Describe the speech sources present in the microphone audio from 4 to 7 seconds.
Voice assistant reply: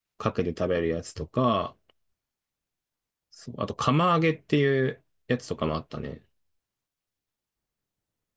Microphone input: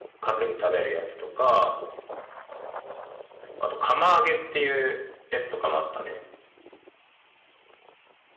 echo only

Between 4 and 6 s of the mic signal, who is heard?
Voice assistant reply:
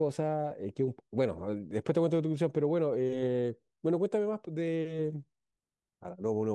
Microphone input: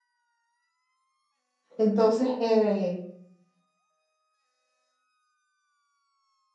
neither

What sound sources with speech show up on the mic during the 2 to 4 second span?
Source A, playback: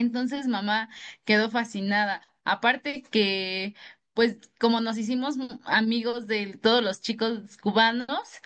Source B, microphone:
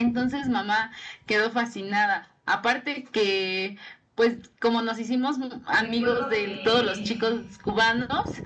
echo only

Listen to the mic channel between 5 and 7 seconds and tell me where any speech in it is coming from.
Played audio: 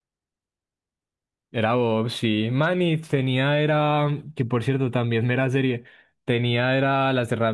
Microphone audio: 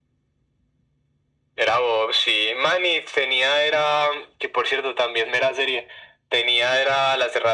echo only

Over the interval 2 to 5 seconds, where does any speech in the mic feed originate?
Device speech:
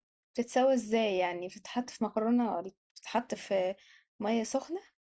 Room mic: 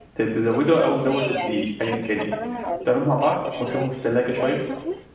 both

